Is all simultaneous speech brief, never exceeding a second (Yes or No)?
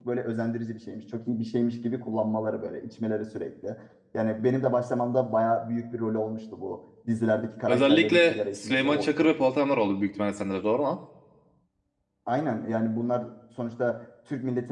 No